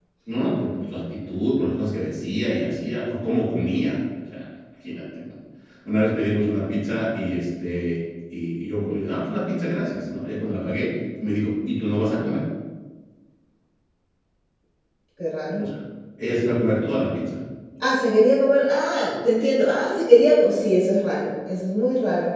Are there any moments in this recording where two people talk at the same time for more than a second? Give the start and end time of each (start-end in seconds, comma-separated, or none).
none